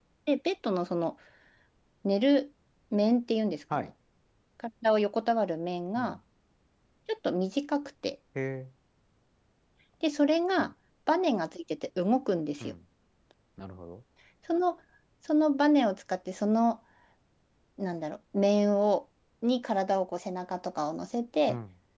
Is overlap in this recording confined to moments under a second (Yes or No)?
Yes